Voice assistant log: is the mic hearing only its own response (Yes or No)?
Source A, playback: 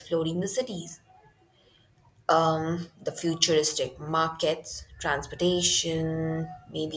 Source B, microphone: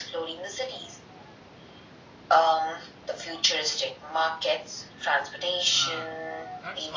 No